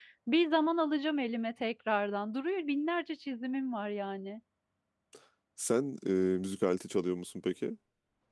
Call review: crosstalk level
none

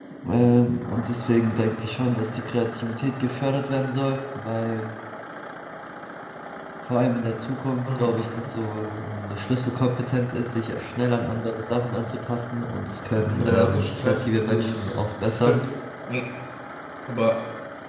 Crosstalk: present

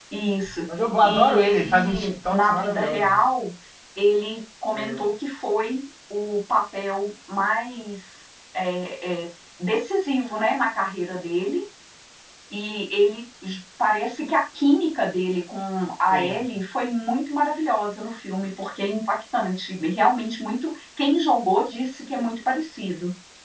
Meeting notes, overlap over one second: present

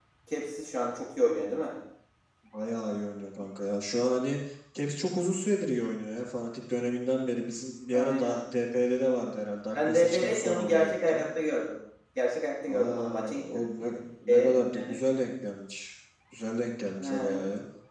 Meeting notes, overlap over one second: present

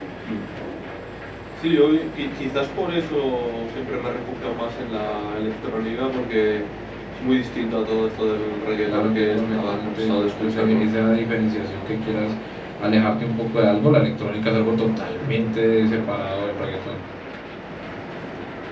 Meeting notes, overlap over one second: present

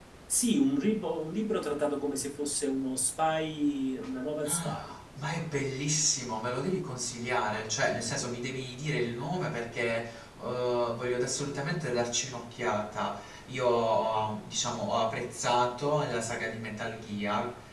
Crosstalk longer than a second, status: none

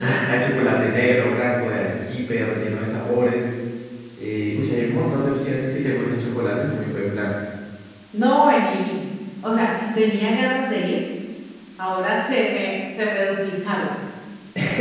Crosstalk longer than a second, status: none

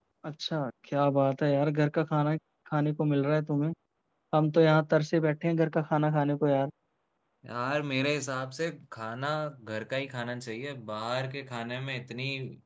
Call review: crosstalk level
none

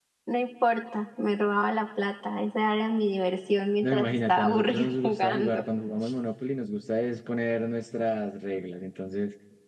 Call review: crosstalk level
present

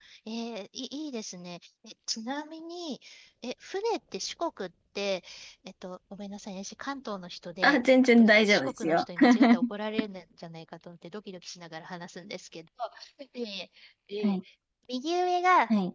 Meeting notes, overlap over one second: present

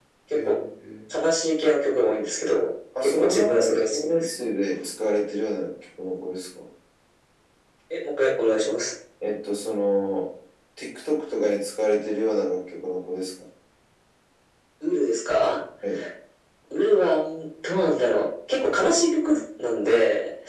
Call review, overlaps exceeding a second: present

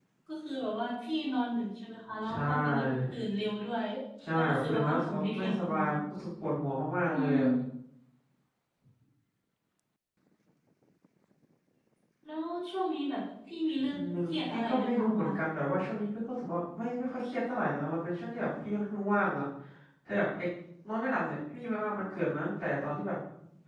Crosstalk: present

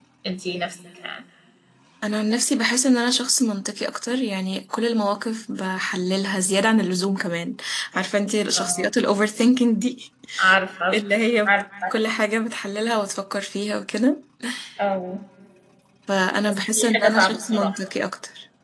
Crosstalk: present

